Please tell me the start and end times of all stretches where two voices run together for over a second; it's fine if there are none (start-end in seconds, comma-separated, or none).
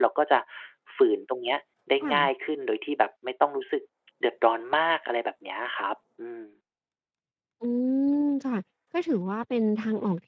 none